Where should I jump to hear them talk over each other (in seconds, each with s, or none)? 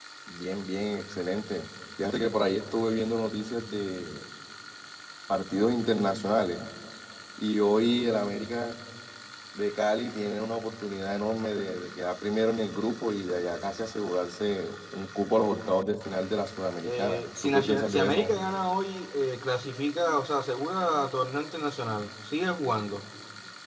16.8 s